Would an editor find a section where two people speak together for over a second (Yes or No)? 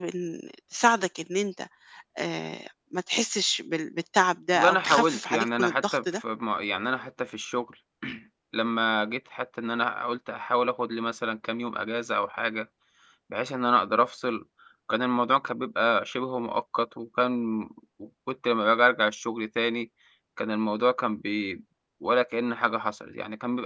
Yes